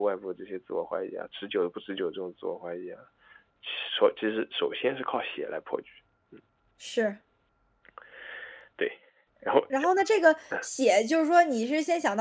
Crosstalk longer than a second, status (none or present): none